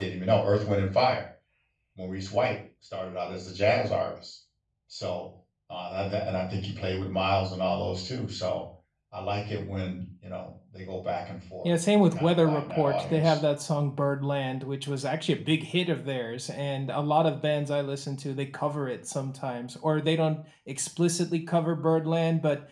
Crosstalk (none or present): present